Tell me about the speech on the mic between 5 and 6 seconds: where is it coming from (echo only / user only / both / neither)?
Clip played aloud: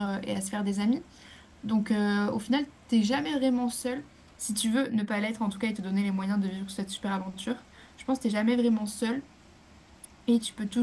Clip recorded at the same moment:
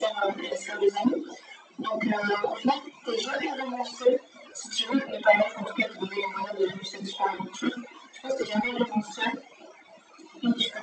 echo only